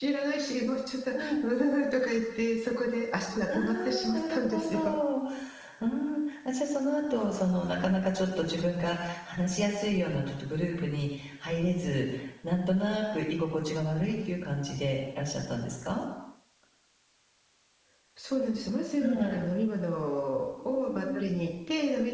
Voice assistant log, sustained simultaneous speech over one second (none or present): present